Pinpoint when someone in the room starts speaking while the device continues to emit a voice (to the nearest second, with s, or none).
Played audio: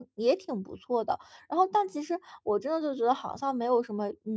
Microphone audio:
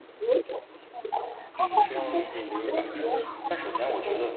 2 s